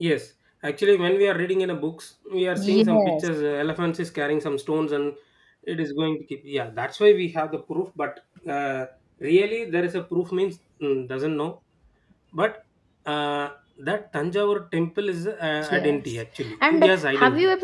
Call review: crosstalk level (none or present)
present